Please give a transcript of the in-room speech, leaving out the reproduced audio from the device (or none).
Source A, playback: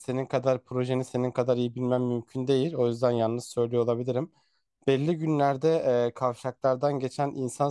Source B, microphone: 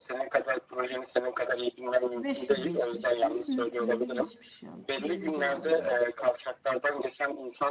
İşte 500 geçmiş. Kimisinde 350 geçmiş ya. 350 civarı yani.